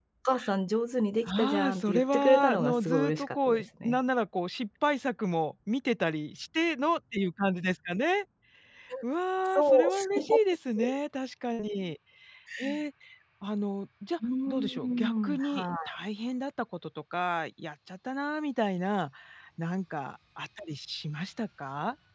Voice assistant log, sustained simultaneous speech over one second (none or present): present